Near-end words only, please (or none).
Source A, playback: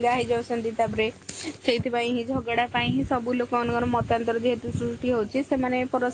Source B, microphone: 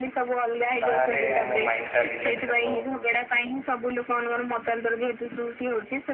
ତାହଲେ ଆମ ମାଇଣ୍ଡ ଟା ରିଲାକ୍ସ ହେବ।